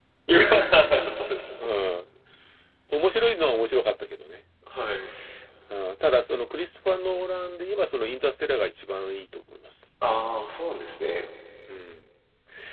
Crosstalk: none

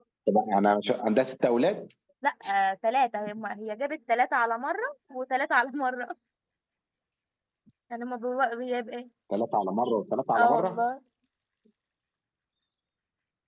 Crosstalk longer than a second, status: none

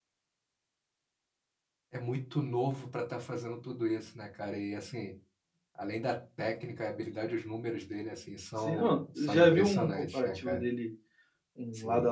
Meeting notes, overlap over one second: present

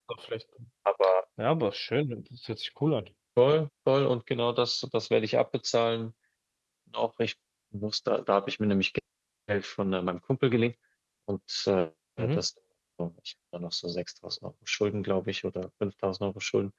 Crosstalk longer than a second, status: none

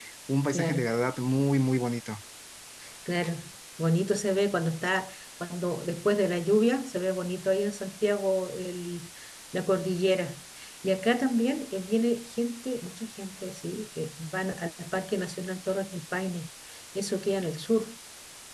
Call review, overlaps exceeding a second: none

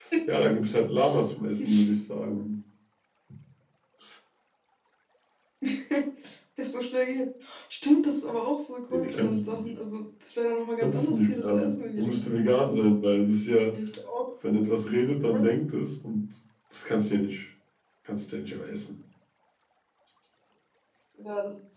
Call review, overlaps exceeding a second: present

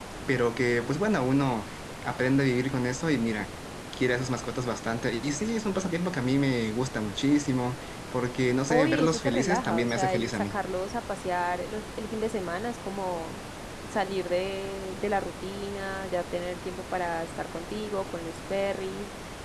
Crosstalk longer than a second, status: present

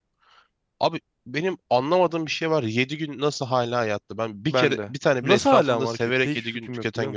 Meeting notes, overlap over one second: present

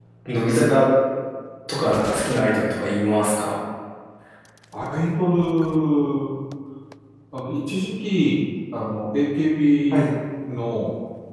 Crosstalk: none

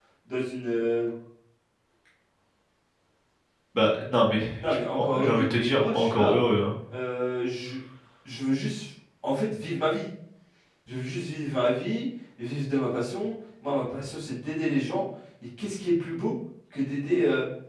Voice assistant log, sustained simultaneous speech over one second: present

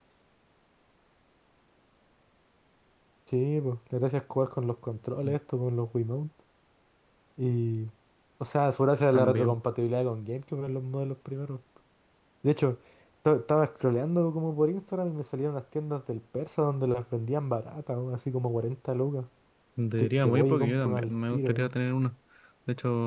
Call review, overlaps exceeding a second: present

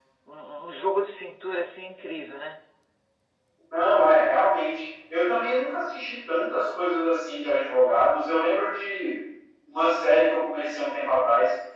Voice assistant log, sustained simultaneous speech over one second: none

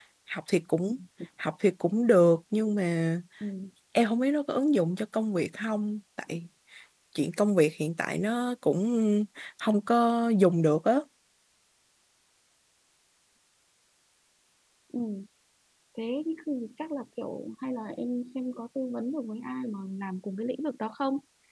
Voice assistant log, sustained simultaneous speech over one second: none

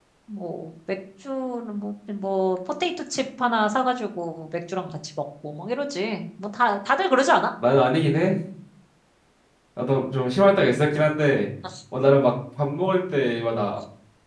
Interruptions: none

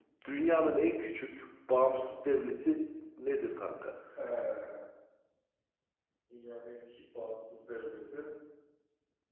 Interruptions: none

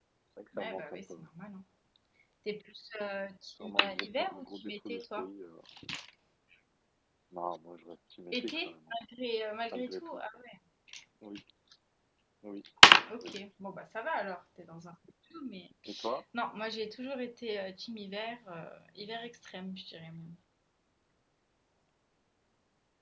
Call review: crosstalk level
present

